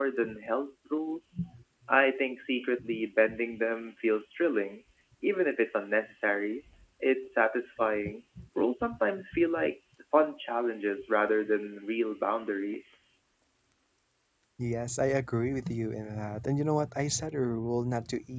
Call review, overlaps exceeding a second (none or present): none